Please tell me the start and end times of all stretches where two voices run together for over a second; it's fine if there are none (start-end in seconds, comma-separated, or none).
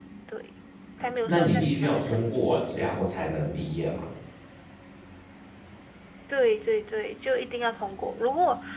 1.2-2.6